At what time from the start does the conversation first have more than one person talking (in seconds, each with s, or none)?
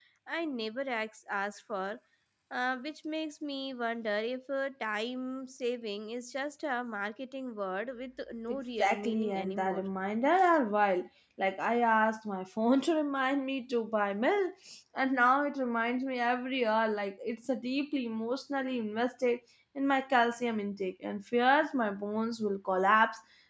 8.5 s